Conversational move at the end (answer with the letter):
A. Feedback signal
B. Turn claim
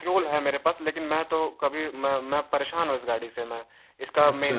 A